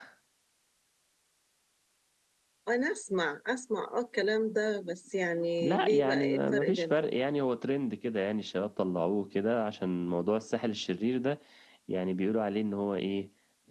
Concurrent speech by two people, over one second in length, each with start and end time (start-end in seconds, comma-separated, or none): 5.6-7.2